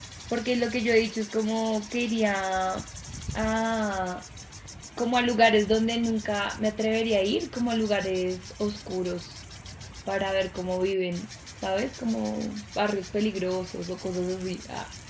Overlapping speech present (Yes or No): No